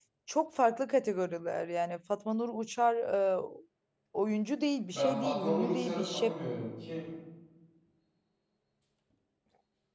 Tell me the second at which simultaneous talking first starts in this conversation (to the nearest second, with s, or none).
5 s